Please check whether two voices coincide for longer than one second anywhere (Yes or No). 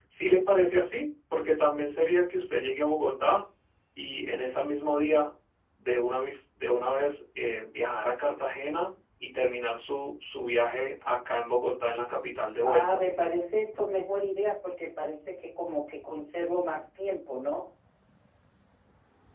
No